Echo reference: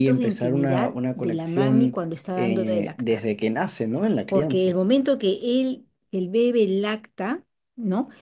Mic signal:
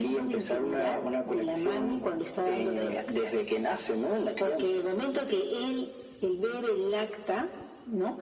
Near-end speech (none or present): none